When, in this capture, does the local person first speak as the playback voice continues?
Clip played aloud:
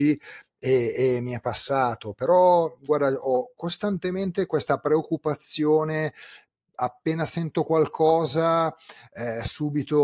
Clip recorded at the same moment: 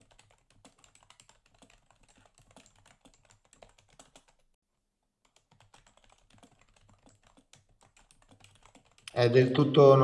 9.1 s

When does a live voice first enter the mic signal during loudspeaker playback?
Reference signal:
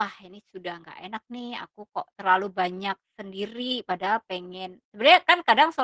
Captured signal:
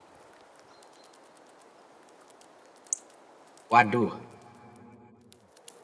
3.7 s

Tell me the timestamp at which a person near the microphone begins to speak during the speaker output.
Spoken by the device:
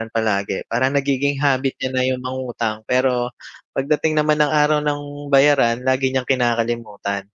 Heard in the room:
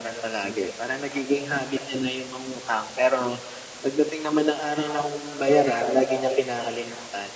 none

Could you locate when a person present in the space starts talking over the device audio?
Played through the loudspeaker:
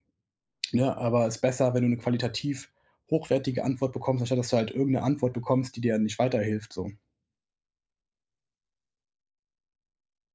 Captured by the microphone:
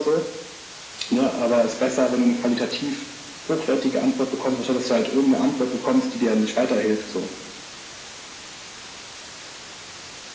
none

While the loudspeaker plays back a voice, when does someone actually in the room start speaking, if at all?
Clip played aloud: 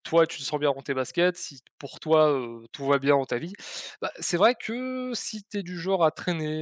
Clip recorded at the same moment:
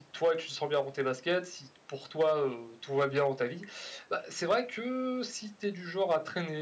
none

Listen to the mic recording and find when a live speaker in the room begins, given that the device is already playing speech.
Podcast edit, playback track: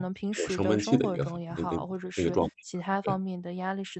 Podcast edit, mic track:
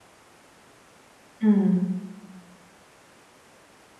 1.4 s

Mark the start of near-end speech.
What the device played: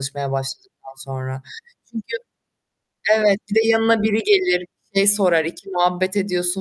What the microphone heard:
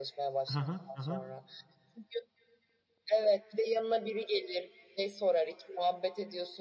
0.4 s

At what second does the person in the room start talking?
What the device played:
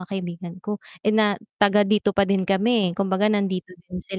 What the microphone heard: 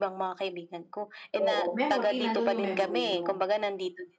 1.4 s

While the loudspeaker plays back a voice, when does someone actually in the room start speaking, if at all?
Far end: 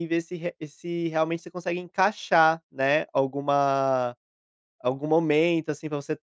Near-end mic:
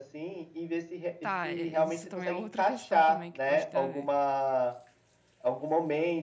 1.2 s

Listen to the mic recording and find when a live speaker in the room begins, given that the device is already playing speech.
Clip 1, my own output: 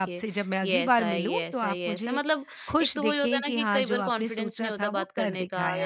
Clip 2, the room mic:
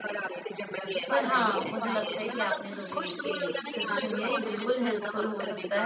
1.1 s

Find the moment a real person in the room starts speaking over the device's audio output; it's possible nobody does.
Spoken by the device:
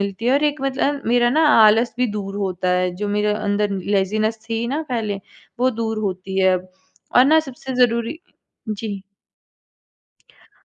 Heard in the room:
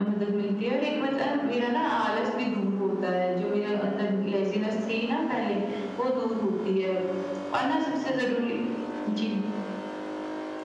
none

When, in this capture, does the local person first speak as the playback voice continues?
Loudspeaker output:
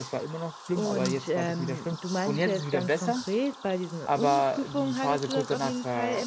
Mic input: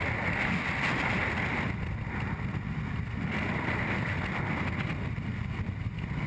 none

